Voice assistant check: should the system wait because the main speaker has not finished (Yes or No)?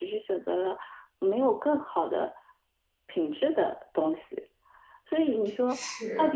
Yes